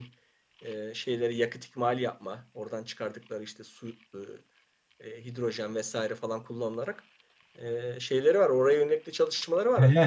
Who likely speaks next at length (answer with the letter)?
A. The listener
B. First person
A